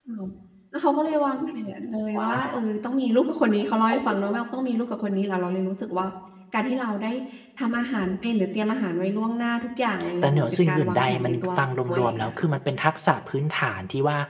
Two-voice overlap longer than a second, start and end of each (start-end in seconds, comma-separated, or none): 10.2-11.5